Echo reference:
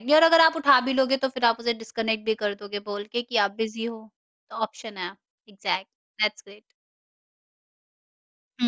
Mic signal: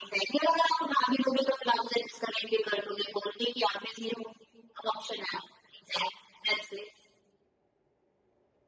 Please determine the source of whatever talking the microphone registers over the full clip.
echo only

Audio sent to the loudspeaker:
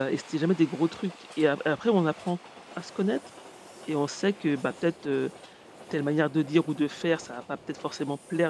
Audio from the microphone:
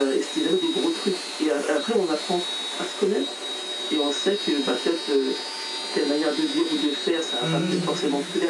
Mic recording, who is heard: both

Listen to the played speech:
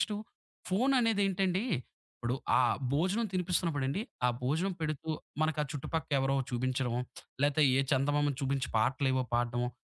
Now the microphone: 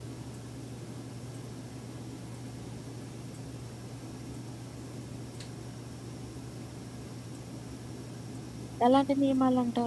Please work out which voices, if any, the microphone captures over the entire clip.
user only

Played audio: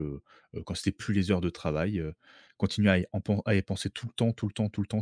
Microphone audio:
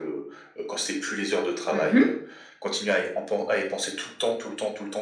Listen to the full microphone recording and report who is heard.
both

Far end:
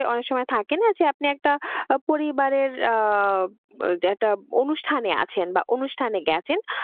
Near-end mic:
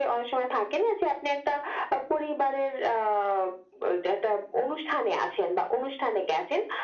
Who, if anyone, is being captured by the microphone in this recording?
echo only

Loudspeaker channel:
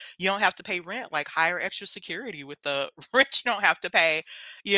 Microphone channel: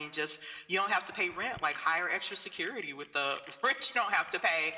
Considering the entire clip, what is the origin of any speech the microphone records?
echo only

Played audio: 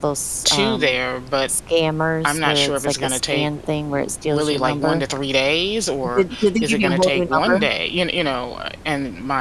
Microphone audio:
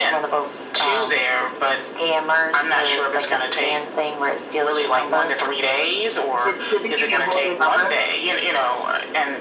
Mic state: echo only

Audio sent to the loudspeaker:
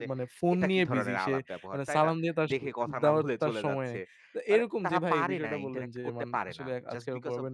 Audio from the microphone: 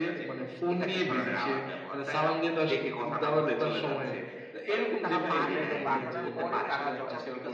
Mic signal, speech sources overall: both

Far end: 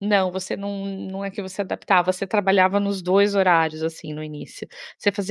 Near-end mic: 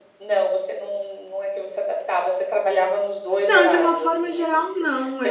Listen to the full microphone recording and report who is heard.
both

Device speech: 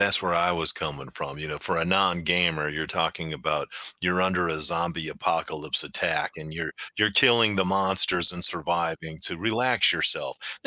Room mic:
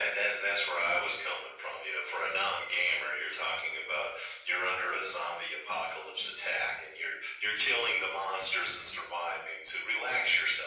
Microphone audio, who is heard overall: echo only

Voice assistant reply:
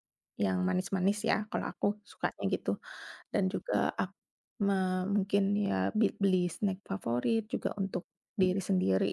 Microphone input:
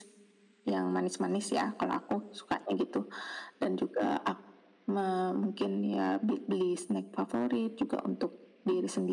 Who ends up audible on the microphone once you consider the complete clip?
echo only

